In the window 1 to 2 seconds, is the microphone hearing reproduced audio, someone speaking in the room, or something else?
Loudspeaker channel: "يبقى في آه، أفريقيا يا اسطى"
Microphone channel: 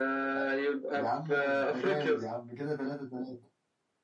both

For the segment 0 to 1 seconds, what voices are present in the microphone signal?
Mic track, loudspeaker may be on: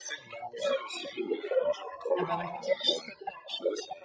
echo only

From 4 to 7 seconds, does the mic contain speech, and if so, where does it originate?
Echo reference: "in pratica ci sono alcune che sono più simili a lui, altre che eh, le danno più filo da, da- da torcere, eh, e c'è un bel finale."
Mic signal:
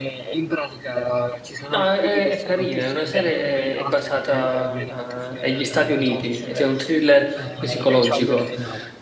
both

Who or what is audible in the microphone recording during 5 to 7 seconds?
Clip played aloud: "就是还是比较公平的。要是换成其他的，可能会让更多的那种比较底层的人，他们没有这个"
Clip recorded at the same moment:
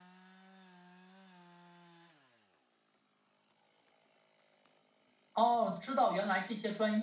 user only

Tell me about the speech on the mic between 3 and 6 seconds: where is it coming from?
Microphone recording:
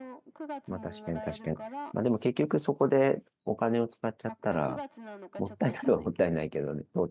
both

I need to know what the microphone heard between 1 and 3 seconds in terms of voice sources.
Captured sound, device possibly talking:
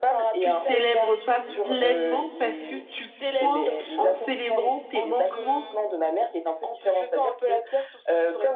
both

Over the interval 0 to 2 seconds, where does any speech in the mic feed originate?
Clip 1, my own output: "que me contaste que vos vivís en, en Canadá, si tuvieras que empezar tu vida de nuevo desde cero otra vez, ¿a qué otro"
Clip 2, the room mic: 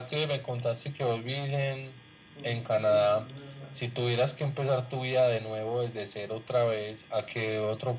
echo only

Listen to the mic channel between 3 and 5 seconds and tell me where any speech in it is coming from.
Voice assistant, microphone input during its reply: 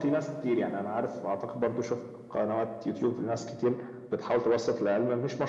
echo only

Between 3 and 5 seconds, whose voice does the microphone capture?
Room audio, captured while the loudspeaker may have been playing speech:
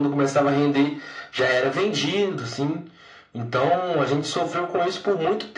echo only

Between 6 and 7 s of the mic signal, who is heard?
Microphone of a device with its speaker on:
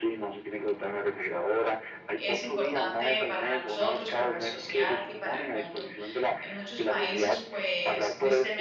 both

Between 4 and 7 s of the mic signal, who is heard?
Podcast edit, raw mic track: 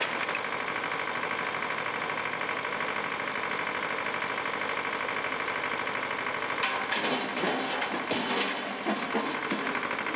neither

